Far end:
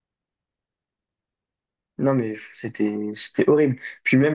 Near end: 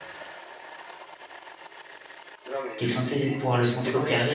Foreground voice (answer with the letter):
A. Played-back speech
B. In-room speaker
B